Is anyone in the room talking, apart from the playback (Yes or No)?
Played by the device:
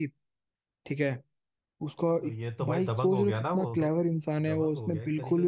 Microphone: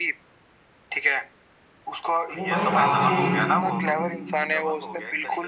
Yes